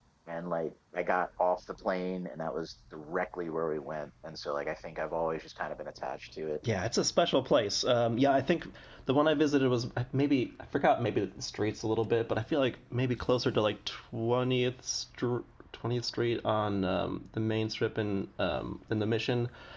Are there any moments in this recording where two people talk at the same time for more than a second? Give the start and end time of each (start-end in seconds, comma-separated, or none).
none